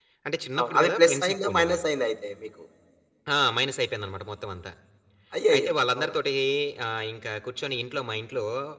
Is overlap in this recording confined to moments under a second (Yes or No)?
No